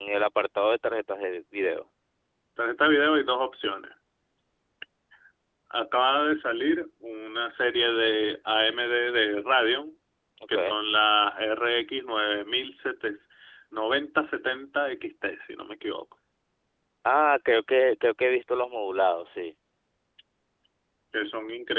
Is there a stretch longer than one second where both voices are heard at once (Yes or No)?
No